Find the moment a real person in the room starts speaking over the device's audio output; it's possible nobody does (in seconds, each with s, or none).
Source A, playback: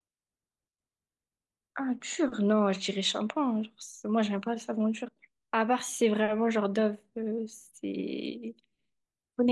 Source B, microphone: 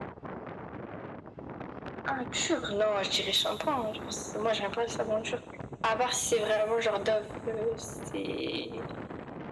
none